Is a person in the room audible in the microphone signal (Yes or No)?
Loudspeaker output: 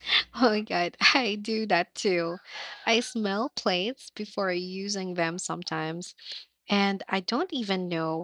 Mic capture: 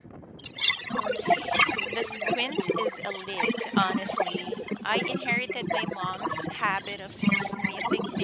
Yes